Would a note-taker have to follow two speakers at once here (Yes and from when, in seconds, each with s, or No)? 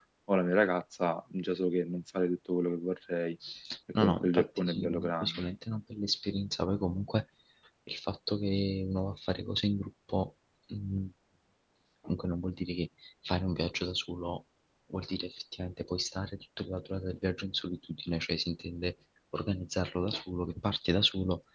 Yes, from 4.0 s